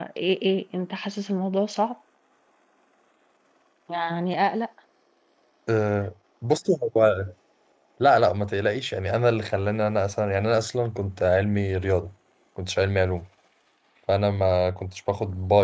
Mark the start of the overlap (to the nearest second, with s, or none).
none